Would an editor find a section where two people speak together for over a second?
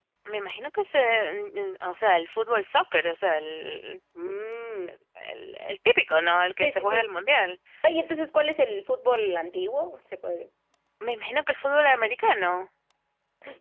No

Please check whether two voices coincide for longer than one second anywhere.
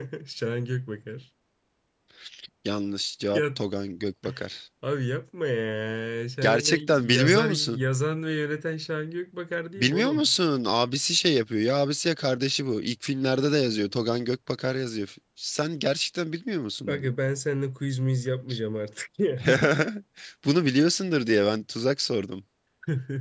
Yes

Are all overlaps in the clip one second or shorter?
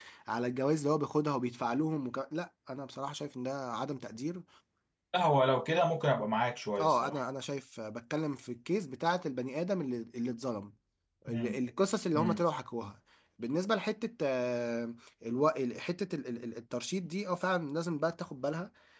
Yes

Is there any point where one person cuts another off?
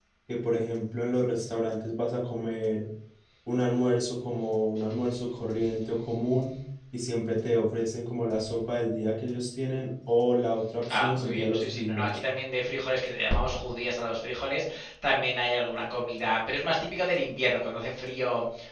Yes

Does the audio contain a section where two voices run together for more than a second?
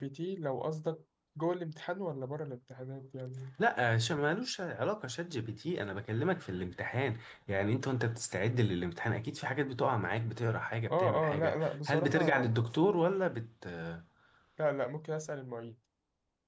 Yes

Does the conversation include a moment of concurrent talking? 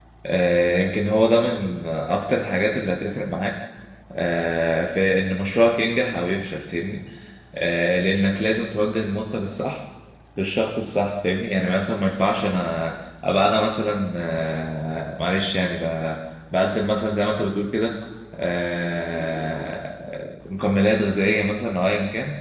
No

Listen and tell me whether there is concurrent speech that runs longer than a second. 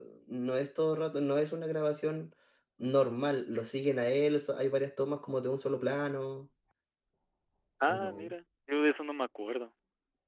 No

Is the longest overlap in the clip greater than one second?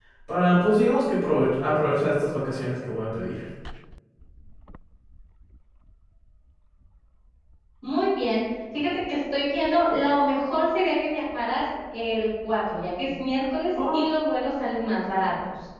No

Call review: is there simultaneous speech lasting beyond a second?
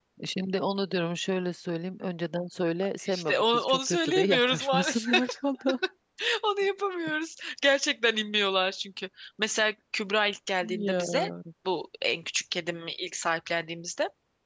Yes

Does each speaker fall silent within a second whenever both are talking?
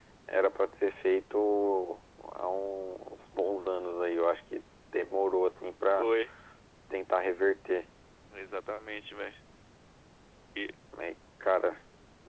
Yes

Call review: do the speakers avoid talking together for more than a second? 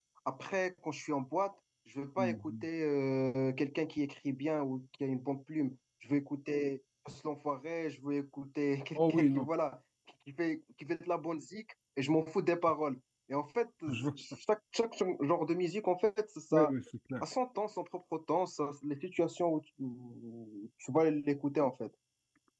Yes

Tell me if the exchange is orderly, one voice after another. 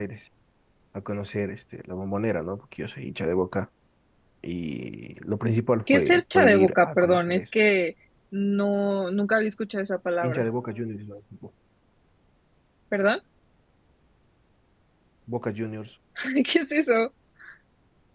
No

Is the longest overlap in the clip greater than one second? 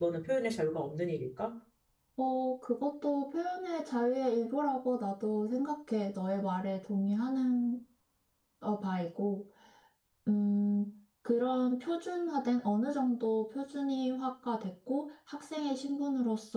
No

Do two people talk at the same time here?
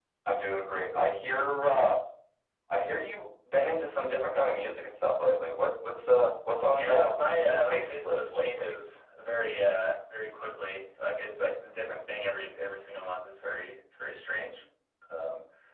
Yes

